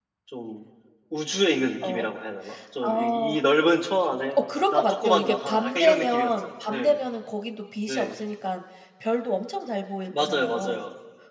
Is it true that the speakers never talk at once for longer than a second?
No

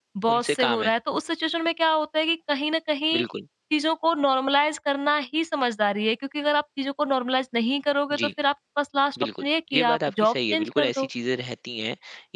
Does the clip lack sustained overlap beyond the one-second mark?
No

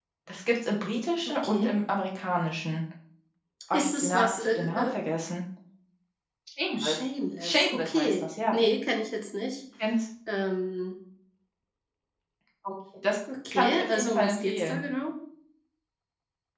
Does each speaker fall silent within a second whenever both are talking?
No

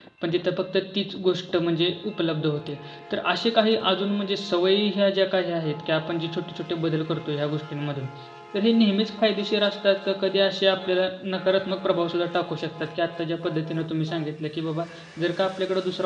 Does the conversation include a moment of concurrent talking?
No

